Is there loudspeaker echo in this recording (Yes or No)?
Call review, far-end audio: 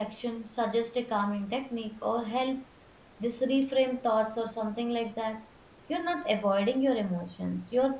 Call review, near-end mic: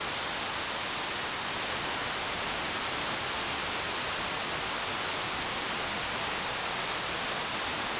No